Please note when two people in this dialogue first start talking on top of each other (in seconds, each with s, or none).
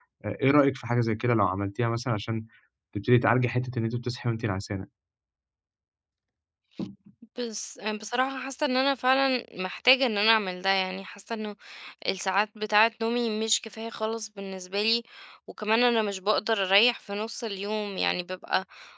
none